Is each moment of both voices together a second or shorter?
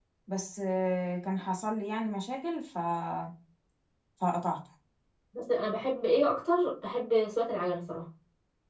Yes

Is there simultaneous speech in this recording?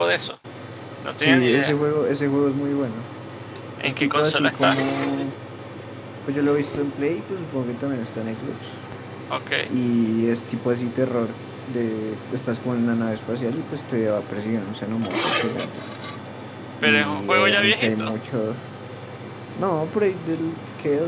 Yes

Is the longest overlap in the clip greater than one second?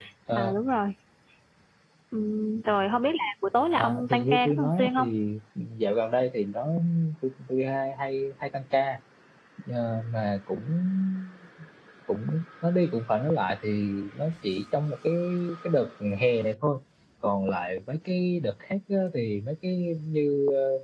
Yes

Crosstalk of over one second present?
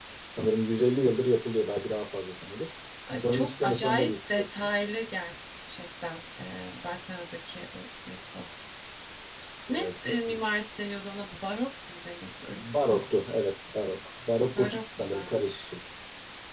Yes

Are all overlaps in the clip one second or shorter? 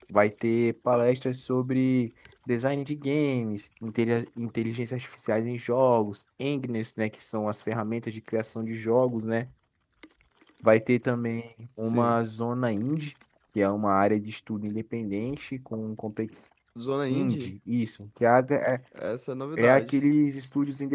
Yes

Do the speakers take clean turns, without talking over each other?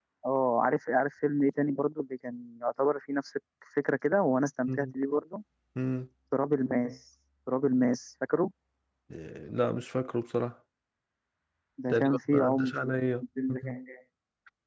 No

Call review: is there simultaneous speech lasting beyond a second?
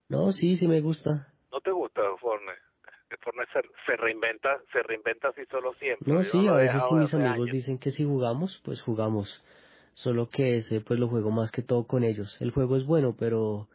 Yes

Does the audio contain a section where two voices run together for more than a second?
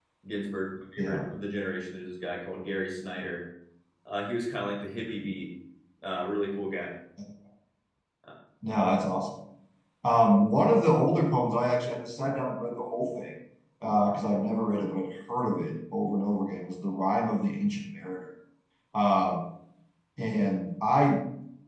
No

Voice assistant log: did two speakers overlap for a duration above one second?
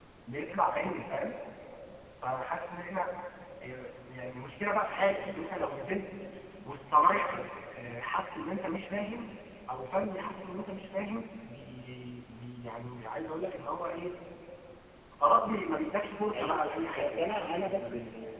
Yes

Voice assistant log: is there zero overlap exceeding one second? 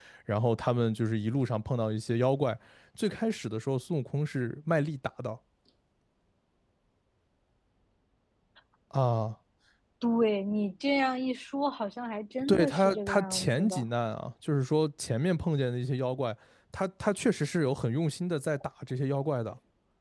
No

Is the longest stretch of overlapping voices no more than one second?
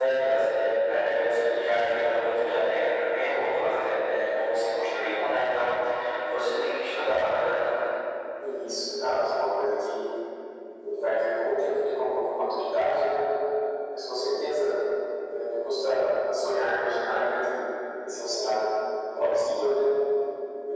Yes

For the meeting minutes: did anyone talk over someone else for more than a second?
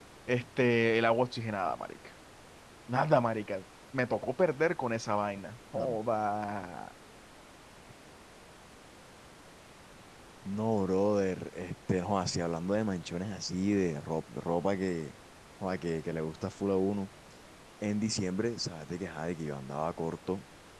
No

